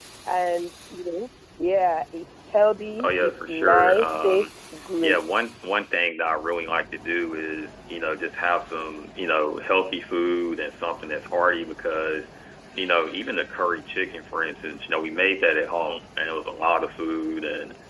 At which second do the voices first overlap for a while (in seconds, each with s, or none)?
3.0 s